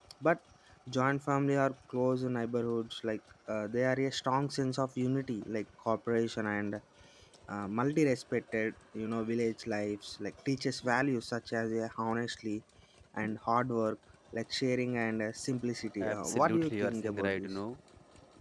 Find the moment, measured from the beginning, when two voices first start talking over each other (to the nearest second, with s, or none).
16 s